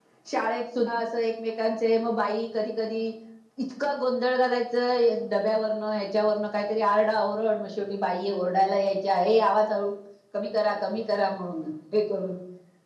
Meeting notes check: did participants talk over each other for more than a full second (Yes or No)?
No